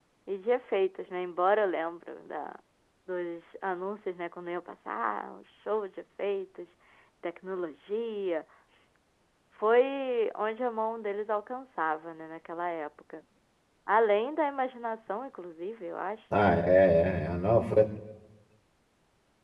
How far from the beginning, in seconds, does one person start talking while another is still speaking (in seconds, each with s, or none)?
none